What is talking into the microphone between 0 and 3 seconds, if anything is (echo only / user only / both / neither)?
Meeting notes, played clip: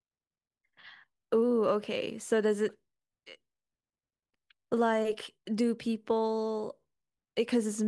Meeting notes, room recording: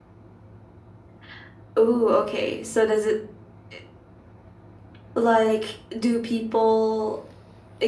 echo only